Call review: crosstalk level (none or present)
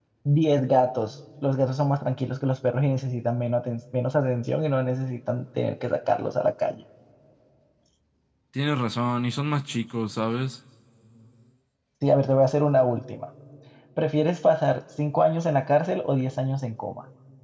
none